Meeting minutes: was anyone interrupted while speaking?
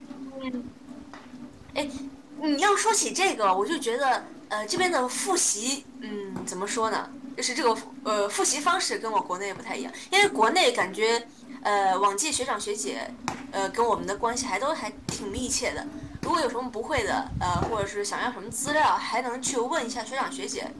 No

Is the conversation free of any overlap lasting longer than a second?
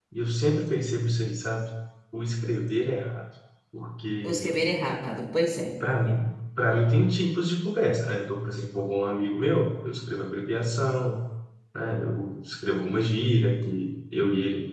Yes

